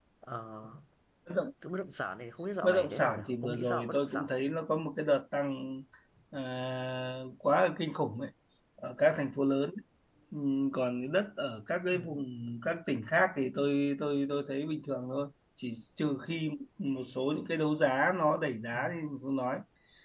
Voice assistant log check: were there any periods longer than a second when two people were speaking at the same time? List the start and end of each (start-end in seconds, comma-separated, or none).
2.6-4.3